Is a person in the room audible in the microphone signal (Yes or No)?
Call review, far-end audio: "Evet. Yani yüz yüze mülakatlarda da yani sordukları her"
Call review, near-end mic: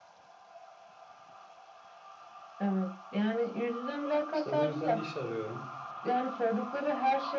Yes